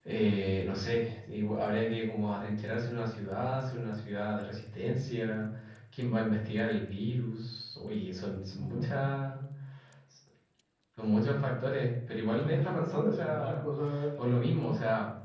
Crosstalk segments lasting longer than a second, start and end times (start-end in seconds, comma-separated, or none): 12.3-13.7